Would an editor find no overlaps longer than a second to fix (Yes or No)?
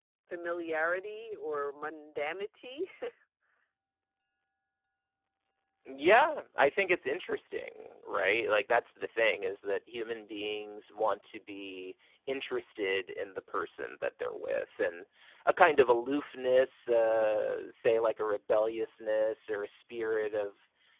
Yes